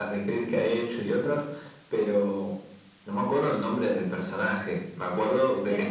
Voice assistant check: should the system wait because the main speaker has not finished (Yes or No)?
No